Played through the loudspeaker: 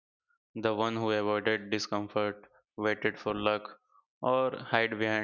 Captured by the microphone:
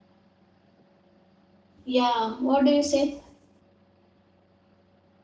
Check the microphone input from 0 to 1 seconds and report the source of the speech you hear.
neither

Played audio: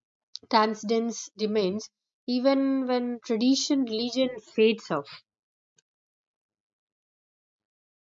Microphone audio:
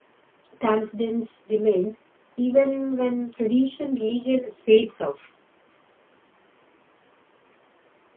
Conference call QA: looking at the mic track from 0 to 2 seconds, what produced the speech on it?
echo only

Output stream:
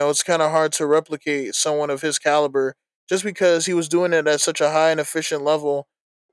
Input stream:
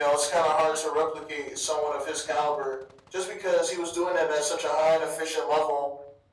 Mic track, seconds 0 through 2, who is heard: echo only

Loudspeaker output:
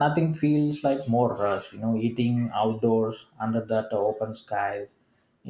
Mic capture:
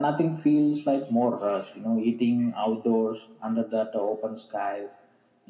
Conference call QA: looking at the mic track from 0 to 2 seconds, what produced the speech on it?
echo only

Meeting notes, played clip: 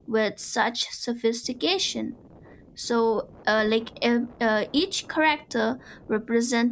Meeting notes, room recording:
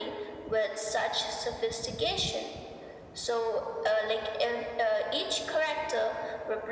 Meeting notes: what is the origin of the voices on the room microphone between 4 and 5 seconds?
echo only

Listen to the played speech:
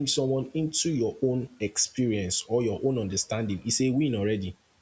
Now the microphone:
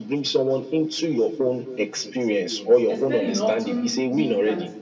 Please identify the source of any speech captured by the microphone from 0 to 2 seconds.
echo only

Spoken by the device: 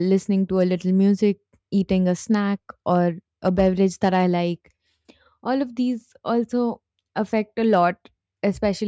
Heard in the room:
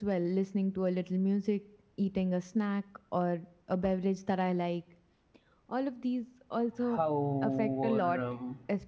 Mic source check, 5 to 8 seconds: both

